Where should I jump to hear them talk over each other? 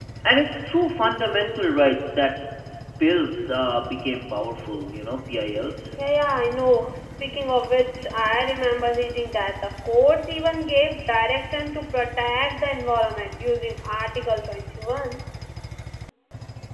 none

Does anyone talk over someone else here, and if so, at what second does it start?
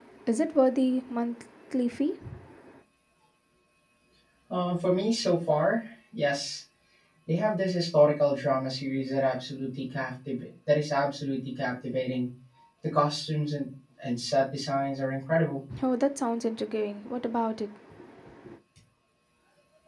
none

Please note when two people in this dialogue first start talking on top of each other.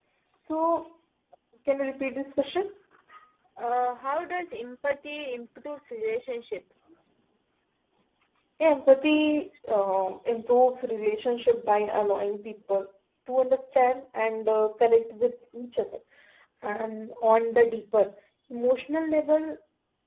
none

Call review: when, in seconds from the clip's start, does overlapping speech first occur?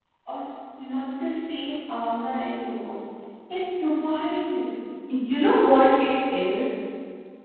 none

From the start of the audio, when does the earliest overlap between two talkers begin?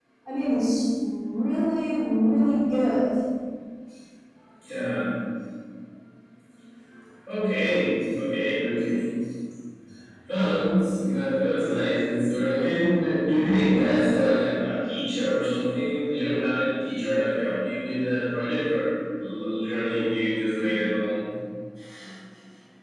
none

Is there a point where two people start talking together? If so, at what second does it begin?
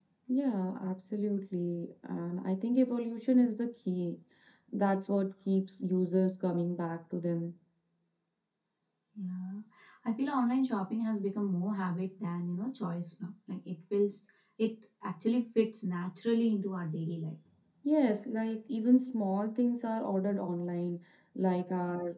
none

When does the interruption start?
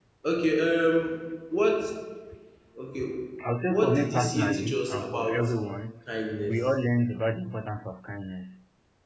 4 s

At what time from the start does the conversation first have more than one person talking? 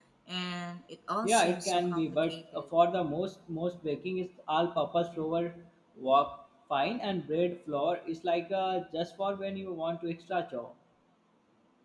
1 s

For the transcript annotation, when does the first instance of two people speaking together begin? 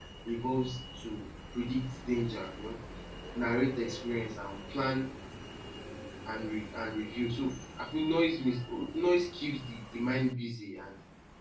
none

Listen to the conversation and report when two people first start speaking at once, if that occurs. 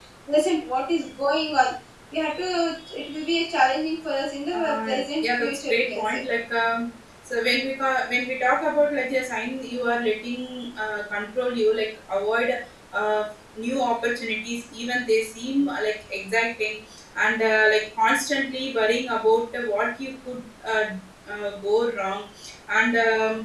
5 s

